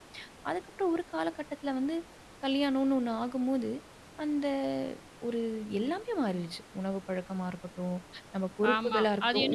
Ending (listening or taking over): taking over